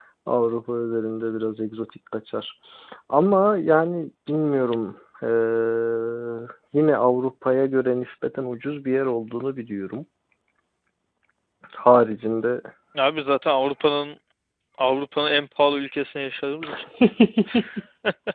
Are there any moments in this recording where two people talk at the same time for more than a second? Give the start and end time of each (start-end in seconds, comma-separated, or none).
none